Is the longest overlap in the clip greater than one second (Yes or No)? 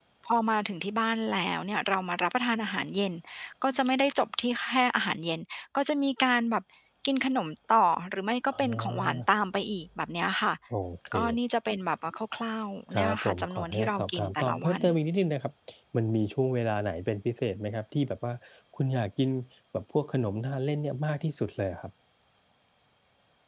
Yes